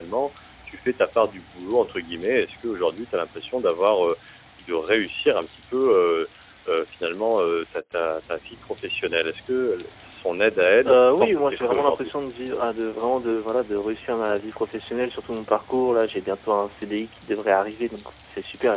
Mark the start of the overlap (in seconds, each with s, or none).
10.8 s